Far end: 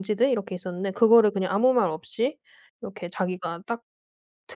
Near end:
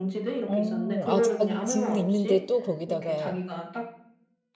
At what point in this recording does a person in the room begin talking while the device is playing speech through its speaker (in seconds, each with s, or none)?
0.5 s